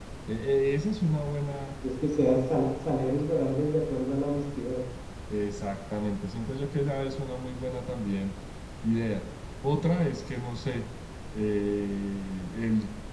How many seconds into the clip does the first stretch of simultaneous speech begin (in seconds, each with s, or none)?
none